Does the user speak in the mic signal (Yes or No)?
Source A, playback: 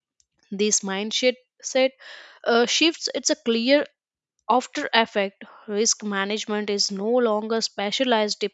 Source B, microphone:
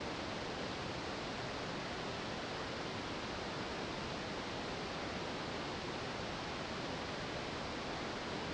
No